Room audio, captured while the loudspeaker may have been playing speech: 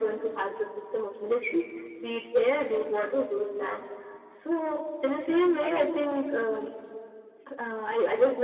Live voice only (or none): I think